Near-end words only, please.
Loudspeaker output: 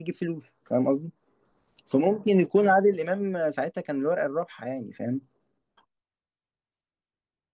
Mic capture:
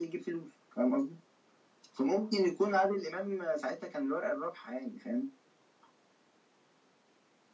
none

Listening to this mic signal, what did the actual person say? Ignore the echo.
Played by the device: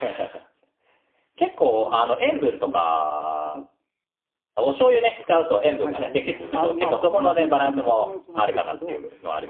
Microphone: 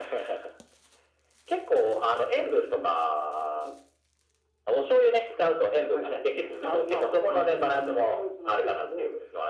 none

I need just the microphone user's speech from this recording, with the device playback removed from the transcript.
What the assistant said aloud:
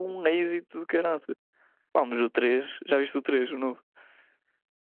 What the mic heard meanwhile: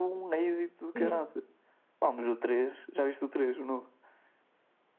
Não.

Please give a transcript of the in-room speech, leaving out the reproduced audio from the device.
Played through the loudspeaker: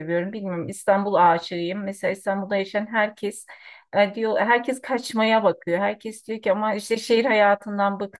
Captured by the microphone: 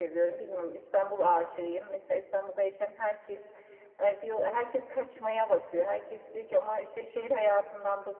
none

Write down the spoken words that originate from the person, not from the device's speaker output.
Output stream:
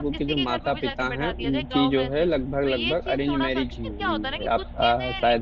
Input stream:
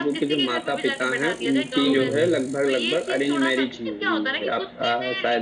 बिल्कुल

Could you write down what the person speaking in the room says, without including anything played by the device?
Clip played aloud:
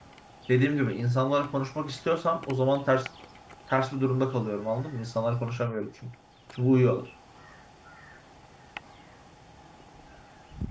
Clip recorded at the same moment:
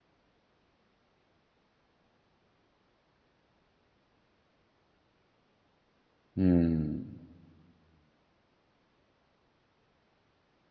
Hmm.

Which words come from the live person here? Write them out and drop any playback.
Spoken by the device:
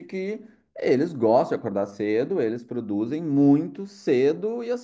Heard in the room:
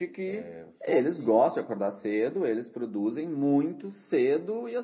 eu sou assim.

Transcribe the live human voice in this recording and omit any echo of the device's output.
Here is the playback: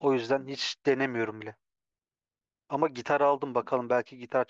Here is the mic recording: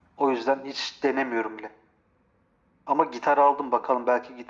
none

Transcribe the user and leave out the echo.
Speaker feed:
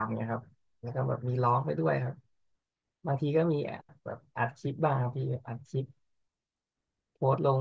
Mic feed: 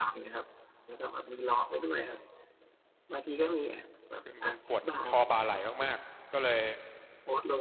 คือมันปวดคอบ่าไหล่มากๆก็เลย

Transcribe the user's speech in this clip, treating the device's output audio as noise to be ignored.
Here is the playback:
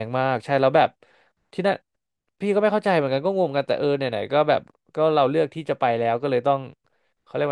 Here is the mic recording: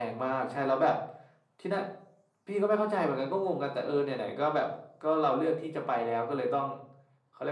none

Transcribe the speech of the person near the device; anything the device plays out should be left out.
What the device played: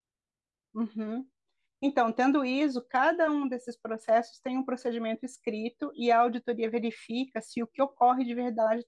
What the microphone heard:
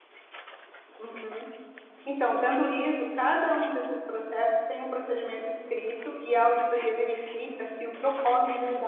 none

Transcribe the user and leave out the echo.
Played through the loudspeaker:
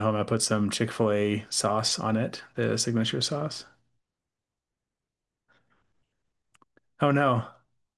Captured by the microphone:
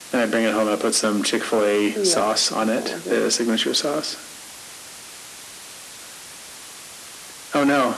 Yeah, it's not worth it.

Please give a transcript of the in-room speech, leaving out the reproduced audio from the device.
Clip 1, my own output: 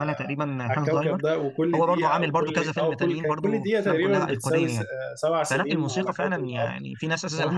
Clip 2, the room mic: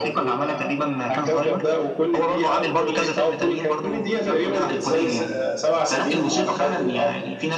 none

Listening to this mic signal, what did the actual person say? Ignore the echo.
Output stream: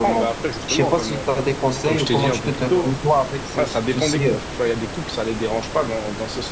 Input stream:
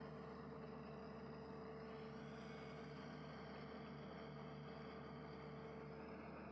none

